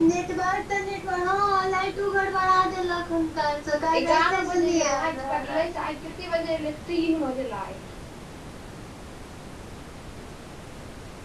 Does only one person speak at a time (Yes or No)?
No